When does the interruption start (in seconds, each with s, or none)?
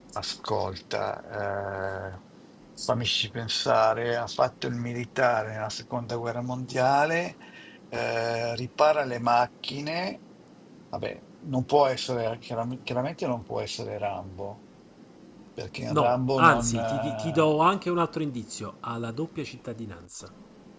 15.9 s